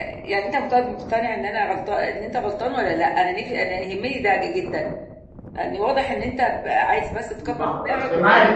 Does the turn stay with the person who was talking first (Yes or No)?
No